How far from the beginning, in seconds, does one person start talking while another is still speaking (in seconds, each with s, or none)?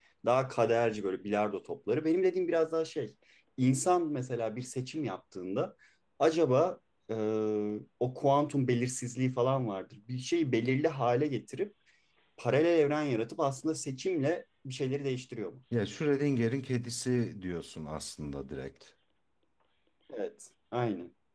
none